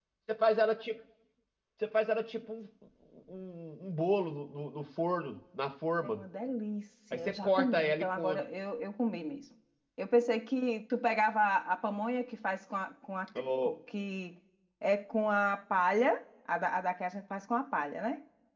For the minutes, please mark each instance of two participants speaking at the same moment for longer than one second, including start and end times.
7.1-8.4

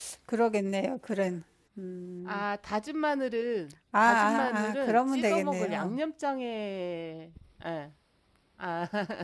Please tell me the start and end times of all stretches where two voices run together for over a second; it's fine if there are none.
4.0-6.0

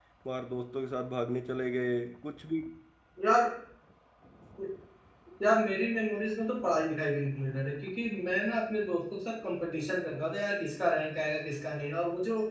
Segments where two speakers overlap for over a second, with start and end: none

